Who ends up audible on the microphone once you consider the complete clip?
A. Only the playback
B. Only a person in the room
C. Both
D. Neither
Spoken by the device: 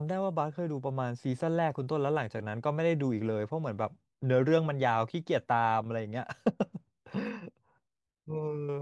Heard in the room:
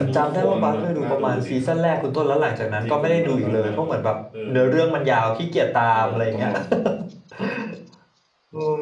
C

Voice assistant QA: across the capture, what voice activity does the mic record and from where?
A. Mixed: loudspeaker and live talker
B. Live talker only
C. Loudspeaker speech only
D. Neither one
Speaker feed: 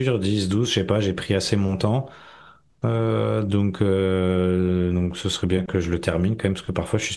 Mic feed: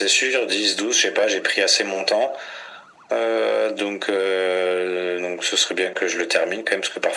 C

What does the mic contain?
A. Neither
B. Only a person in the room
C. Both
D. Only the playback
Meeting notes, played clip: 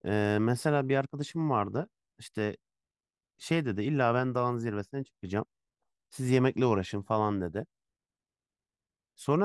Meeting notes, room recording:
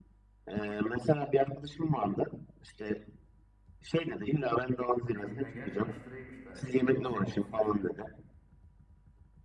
C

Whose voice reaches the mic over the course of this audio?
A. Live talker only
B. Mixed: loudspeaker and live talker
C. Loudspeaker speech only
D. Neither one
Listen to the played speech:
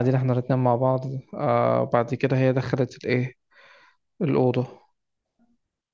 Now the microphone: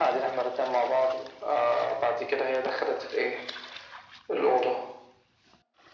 C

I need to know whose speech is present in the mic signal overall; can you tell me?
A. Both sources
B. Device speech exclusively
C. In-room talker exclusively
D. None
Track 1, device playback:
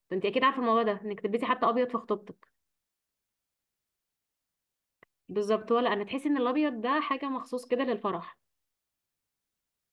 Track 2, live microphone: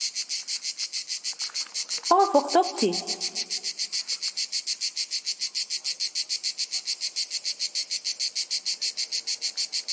C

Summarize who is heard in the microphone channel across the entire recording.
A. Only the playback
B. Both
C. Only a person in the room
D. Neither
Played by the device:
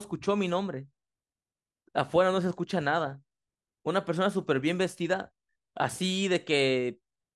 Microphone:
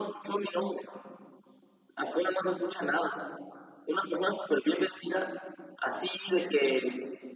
A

